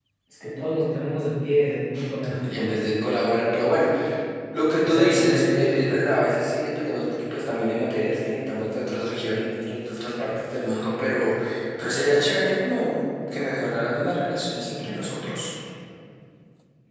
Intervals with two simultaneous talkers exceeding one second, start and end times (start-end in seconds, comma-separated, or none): 4.8-6.0